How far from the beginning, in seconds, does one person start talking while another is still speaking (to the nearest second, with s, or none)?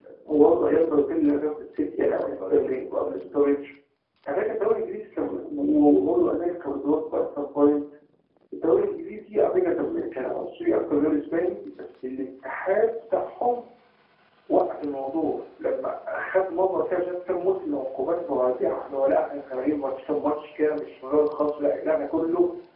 2 s